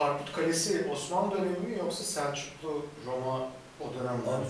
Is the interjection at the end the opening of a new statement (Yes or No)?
Yes